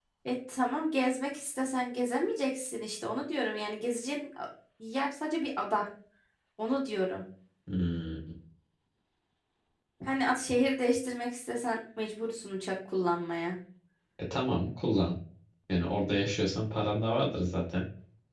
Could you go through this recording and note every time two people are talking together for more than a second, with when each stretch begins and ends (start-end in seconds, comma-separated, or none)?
none